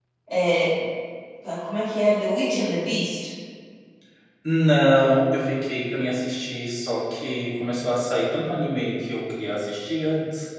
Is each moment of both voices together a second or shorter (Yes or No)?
Yes